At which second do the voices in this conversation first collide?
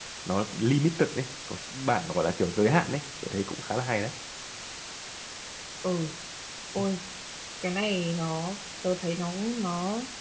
none

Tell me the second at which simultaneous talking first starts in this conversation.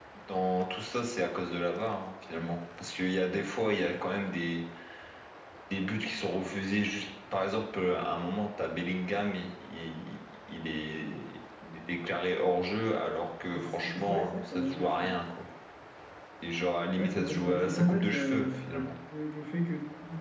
14 s

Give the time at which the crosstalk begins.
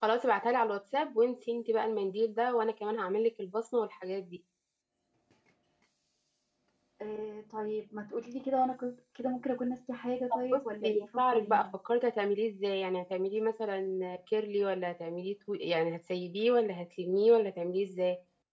10 s

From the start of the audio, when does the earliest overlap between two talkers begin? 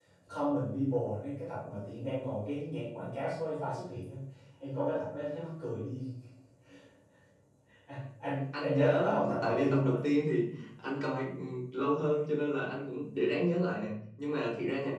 9 s

